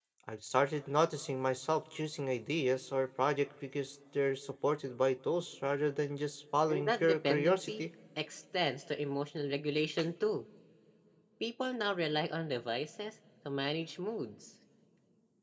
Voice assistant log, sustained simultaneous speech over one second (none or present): present